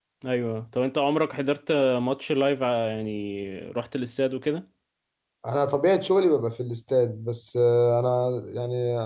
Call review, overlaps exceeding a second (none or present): none